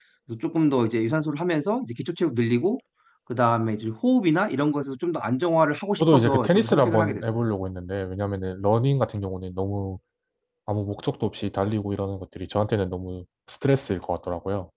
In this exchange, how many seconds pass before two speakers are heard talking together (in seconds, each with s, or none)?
6.0 s